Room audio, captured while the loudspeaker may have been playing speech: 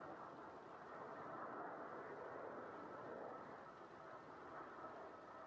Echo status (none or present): none